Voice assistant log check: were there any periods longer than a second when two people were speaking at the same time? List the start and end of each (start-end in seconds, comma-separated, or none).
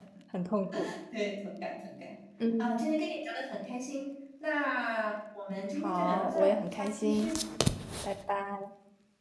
5.8-7.3